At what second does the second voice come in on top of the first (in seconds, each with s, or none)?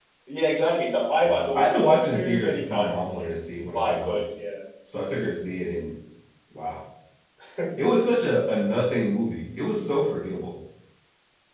1.2 s